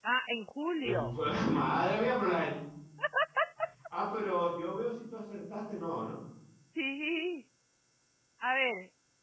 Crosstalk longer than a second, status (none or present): none